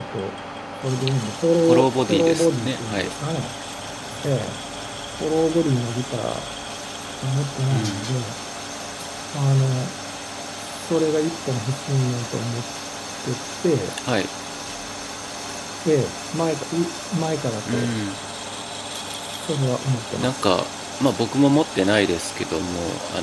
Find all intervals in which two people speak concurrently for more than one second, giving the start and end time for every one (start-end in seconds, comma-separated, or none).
1.6-3.1